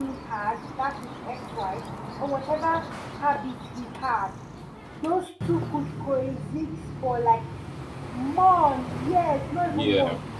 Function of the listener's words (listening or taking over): taking over